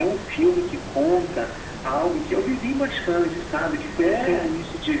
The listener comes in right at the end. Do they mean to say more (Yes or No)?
No